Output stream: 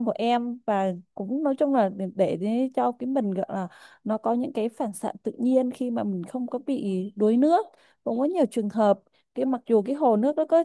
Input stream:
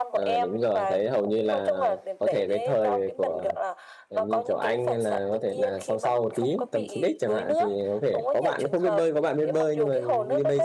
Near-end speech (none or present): present